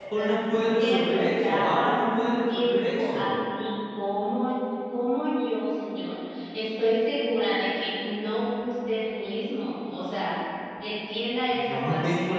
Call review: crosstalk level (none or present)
present